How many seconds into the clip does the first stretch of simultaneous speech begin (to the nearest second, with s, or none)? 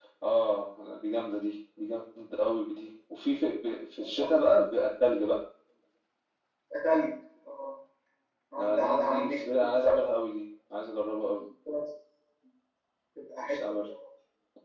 9 s